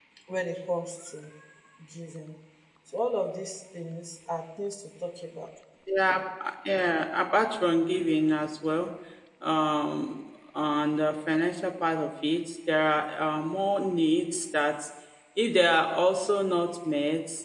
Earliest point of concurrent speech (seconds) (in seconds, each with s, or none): none